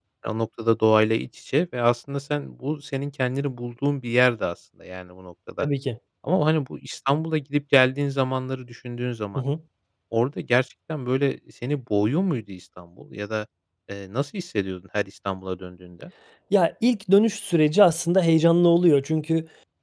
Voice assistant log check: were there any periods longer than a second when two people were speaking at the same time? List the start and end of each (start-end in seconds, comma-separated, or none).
none